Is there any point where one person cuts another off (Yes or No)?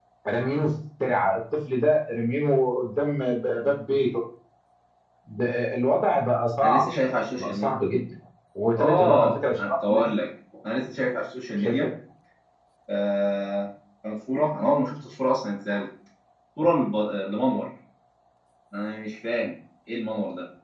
Yes